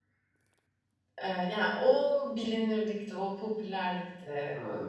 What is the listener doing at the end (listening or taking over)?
listening